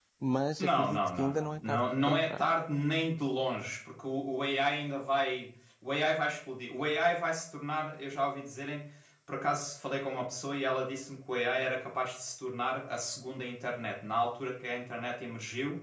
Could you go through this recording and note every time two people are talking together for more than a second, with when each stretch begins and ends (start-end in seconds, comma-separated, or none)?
0.6-2.4